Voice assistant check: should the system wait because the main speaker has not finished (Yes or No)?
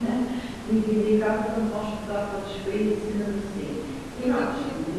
Yes